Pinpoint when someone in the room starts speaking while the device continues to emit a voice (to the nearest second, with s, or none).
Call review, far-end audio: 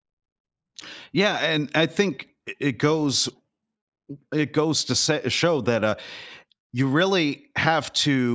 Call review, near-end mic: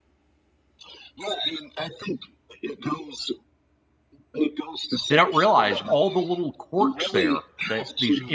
5 s